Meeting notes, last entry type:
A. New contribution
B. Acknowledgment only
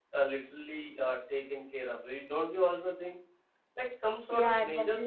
B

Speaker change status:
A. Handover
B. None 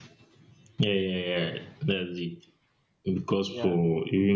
B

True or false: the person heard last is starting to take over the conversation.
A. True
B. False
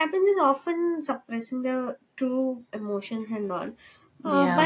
B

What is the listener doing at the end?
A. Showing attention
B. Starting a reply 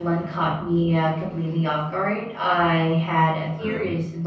A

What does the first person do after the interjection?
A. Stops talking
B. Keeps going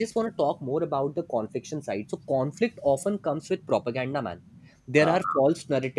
B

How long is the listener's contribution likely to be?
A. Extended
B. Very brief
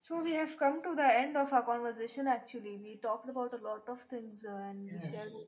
A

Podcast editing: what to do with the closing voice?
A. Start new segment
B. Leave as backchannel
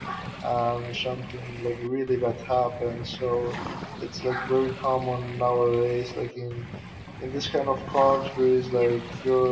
B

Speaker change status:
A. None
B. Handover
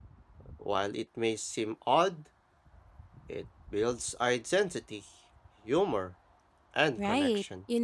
B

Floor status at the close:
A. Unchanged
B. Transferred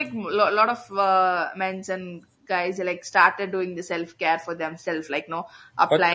A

